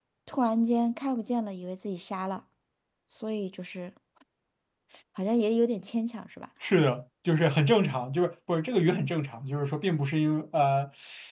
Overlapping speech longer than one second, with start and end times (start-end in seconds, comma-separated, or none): none